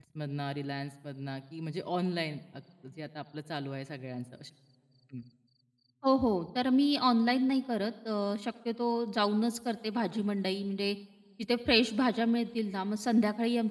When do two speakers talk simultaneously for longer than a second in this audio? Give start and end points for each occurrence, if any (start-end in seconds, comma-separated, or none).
none